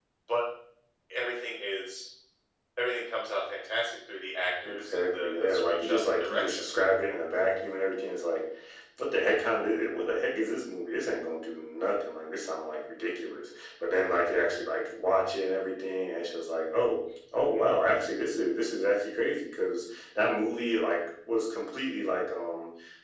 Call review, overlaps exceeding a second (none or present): present